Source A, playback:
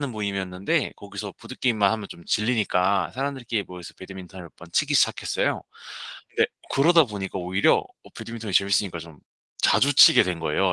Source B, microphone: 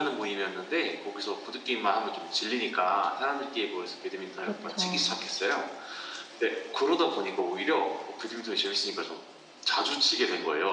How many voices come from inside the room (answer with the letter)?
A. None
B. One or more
B